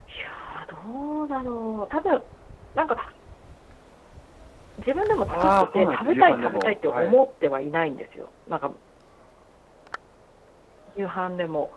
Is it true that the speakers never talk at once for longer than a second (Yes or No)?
No